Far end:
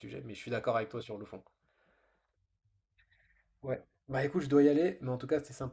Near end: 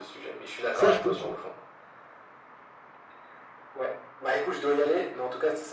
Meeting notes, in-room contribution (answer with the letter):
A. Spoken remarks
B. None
A